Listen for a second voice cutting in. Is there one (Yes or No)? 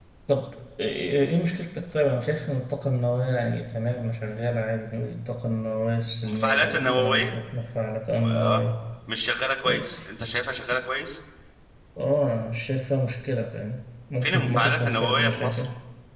Yes